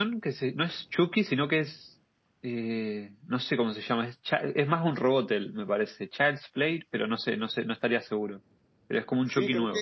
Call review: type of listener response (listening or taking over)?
taking over